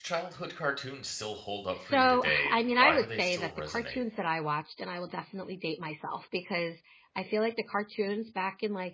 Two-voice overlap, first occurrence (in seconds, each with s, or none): 1.8 s